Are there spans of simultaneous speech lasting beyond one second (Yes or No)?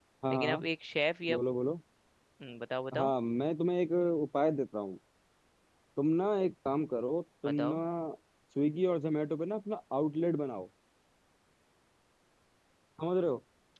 No